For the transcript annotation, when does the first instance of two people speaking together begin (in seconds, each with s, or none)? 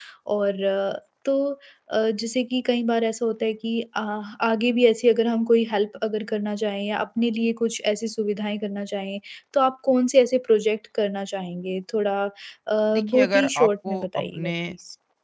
12.9 s